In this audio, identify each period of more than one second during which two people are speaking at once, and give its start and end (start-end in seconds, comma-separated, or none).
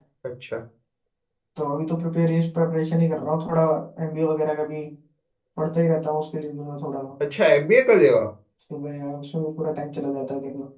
none